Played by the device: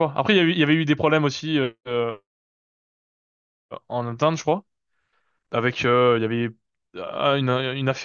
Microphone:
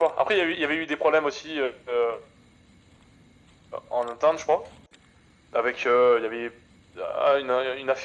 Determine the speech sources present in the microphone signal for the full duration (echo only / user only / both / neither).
echo only